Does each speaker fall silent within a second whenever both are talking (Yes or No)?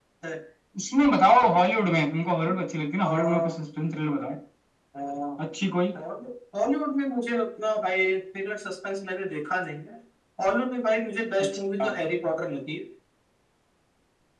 Yes